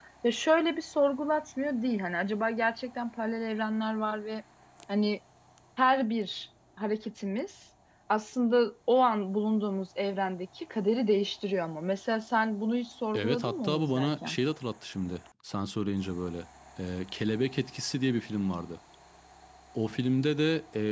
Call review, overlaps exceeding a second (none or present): present